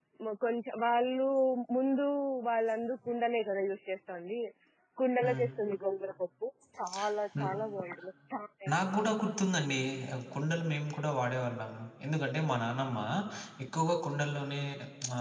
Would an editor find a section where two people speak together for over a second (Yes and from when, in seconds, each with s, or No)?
No